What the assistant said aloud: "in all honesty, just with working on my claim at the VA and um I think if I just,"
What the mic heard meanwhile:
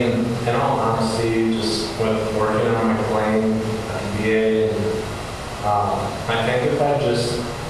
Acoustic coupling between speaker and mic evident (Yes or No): Yes